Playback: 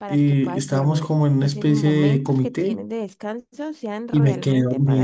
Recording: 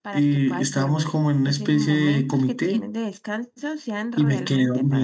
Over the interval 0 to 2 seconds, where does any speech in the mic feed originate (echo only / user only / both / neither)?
echo only